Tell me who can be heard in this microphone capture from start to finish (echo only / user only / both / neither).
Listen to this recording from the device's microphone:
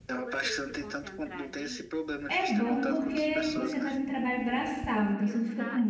both